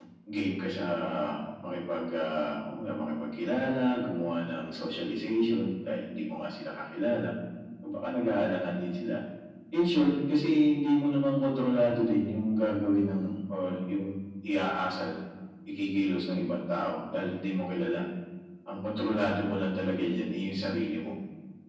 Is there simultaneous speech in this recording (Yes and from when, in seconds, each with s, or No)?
No